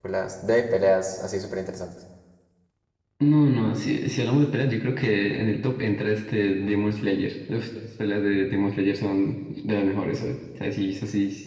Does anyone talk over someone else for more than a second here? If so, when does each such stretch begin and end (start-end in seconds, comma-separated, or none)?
none